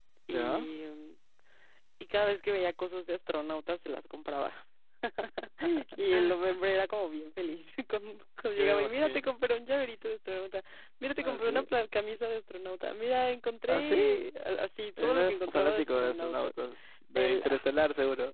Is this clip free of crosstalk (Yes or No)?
No